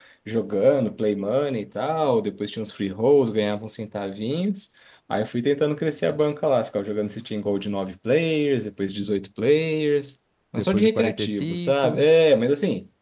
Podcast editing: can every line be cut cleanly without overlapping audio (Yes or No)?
No